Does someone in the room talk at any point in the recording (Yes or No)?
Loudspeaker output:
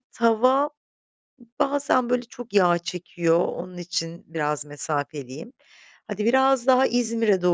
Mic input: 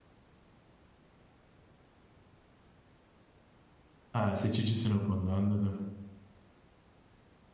Yes